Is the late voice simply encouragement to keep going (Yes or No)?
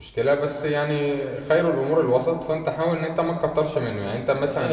No